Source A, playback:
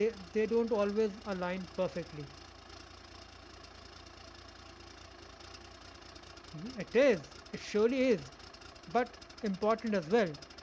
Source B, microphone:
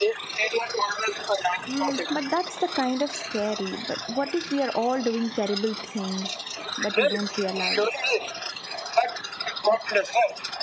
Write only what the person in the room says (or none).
Uh, but that's the kind of scary. But what if we are all doing terrible things, but we don't realize?